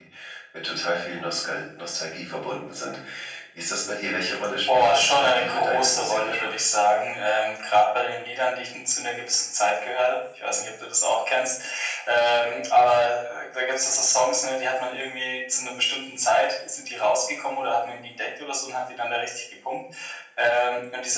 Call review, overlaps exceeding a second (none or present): present